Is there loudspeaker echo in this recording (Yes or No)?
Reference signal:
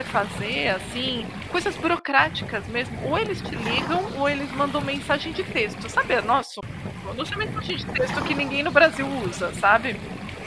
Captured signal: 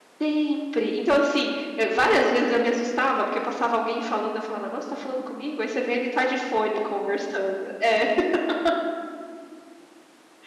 No